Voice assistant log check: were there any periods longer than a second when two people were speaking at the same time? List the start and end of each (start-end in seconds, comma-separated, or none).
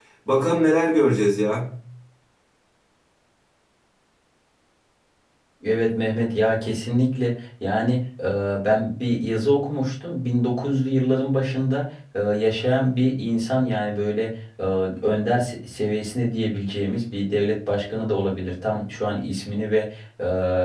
none